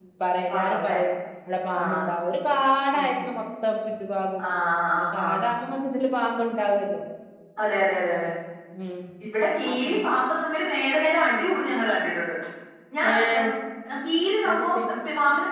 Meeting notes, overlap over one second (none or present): none